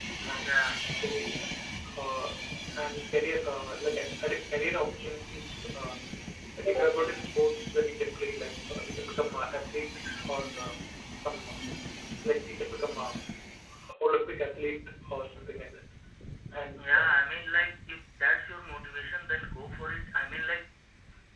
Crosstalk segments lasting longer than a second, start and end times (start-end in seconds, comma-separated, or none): none